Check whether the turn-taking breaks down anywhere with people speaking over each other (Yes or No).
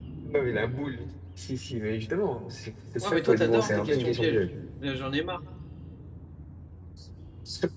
Yes